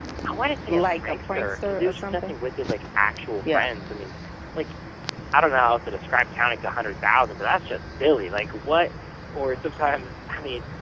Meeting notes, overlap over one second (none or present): present